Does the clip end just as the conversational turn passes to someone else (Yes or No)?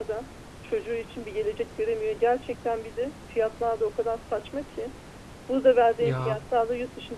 No